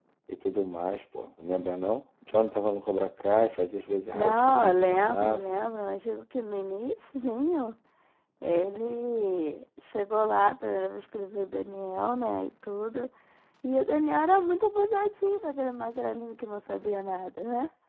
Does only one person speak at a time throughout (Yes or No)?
No